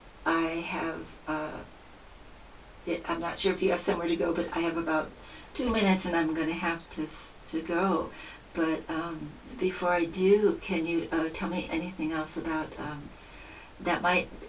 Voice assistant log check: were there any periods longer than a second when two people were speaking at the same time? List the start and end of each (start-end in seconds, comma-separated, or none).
none